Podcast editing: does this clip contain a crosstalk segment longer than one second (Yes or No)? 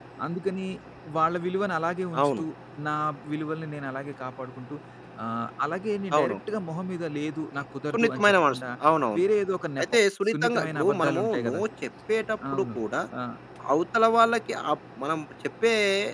Yes